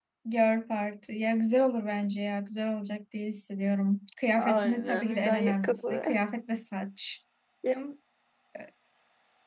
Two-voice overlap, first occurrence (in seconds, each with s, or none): 4.4 s